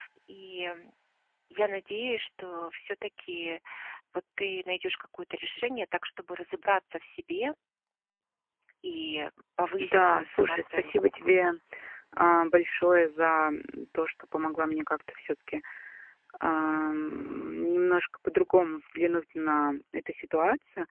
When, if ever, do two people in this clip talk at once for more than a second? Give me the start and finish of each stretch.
9.8-11.1

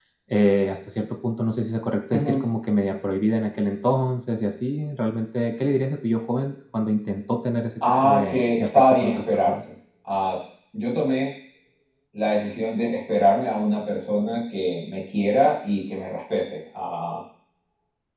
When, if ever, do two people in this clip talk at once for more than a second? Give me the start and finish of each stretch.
8.0-9.6

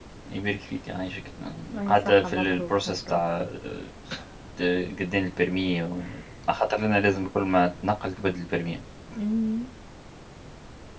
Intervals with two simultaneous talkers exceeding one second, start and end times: 1.9-3.2

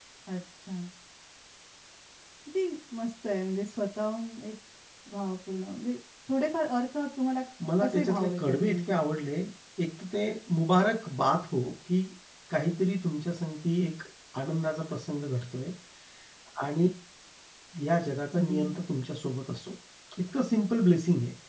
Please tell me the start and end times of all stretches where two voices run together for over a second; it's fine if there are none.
7.8-9.0

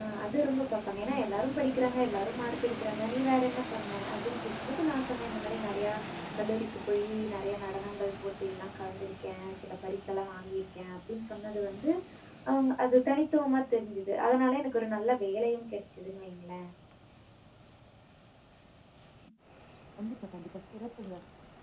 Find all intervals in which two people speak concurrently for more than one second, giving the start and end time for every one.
none

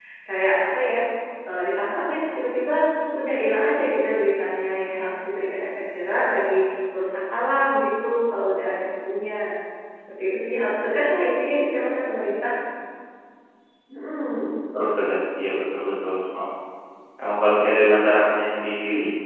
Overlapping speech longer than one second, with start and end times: none

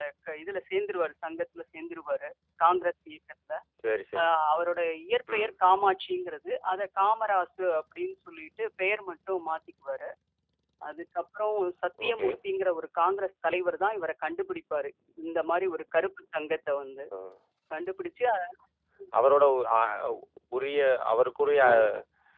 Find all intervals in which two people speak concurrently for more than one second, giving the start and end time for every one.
none

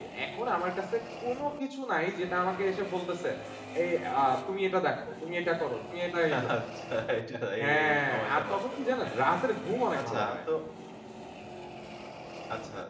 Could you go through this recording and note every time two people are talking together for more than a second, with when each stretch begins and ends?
7.6-9.4

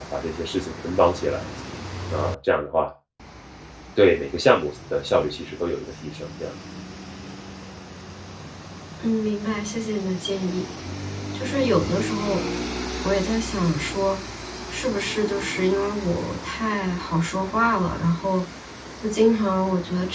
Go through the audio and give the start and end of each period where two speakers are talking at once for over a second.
none

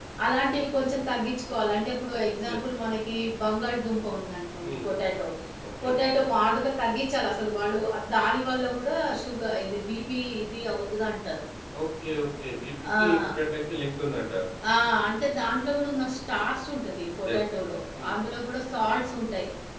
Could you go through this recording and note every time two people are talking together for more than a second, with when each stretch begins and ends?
none

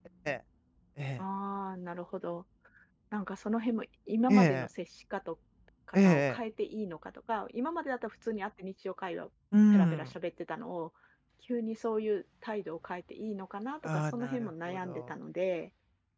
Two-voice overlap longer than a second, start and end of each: 13.8-15.1

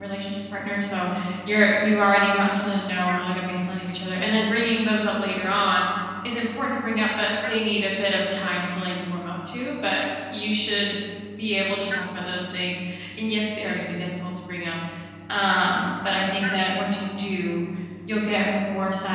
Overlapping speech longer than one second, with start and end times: none

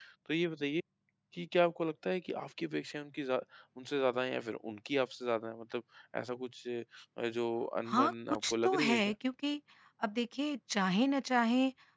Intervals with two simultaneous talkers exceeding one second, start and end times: 7.8-9.1

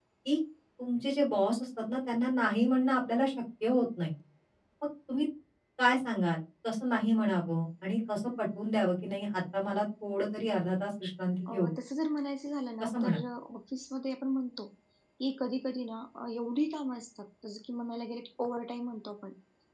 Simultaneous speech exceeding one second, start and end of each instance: none

